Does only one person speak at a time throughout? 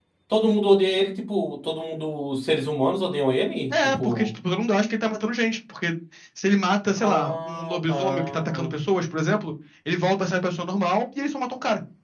No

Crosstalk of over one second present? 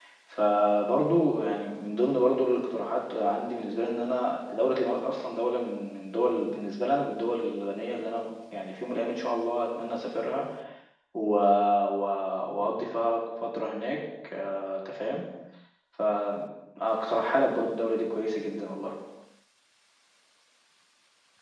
No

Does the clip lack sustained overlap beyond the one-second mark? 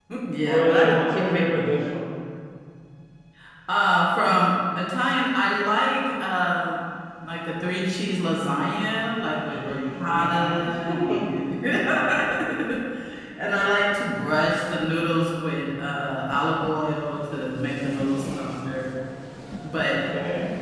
No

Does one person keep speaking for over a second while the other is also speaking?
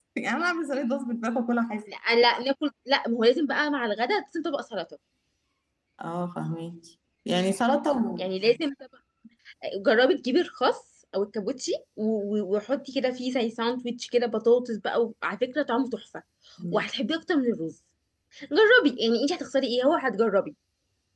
No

